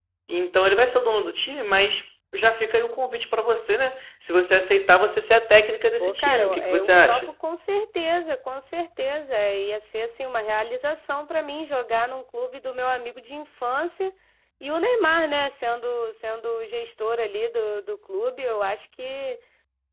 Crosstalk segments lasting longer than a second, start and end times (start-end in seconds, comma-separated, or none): 6.0-7.3